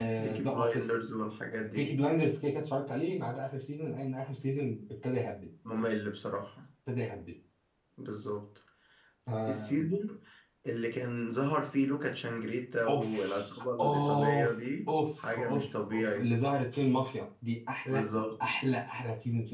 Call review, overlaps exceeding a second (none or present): present